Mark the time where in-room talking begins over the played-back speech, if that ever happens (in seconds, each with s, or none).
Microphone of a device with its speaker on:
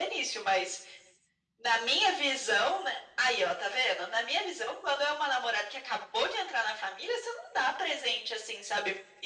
none